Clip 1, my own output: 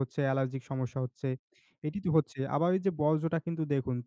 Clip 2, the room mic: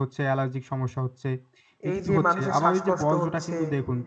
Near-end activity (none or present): present